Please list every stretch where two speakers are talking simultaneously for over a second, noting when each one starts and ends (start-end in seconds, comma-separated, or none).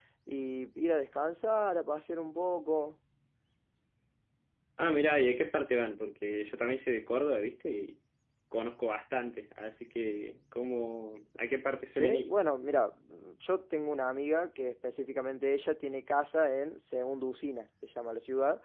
none